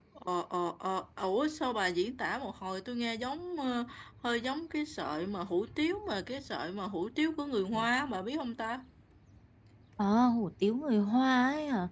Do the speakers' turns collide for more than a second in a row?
No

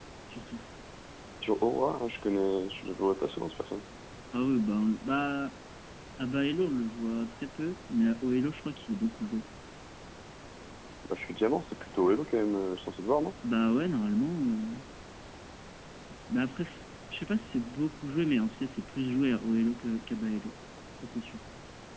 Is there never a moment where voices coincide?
Yes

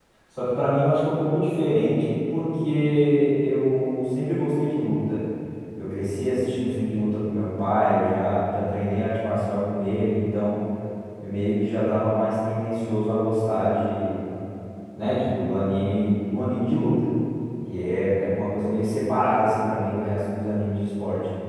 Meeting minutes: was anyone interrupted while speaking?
No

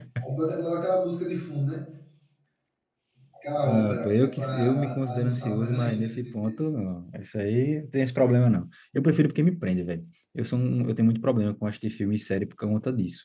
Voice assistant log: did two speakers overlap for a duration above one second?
Yes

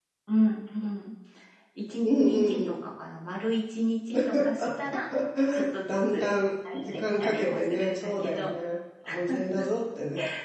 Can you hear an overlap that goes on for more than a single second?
Yes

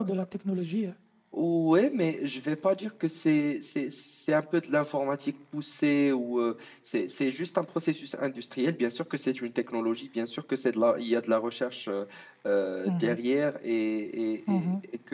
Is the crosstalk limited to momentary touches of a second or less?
Yes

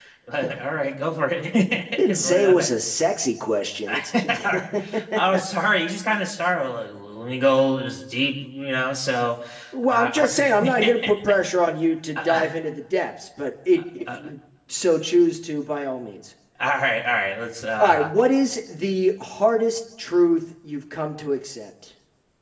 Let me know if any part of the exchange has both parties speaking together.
Yes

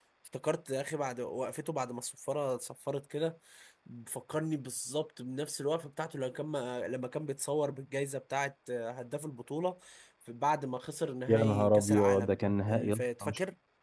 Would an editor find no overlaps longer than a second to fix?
No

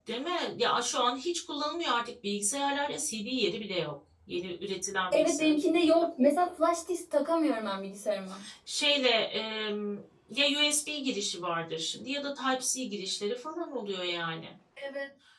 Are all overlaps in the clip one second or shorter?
Yes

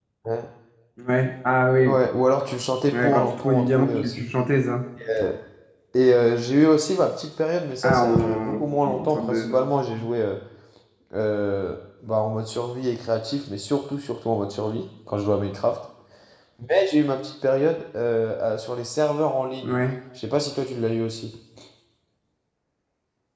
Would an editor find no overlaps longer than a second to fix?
No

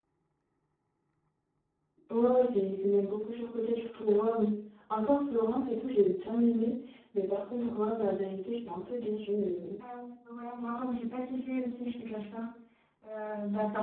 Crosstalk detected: No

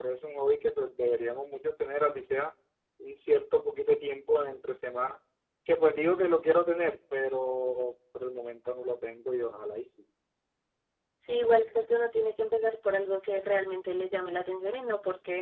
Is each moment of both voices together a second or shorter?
Yes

